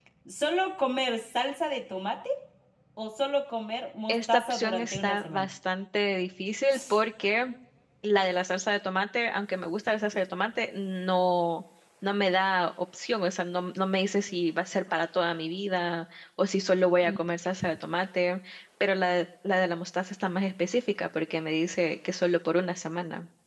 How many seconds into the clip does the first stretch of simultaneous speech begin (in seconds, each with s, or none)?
4.1 s